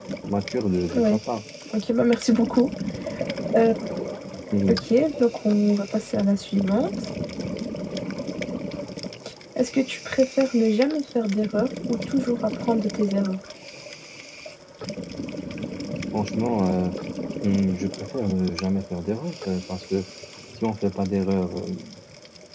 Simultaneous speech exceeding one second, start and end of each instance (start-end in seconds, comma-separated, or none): none